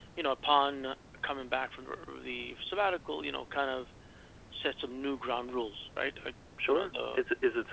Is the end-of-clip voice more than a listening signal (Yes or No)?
Yes